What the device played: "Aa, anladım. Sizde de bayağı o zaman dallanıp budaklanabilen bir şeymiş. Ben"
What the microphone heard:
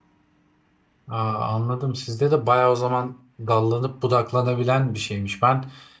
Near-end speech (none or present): none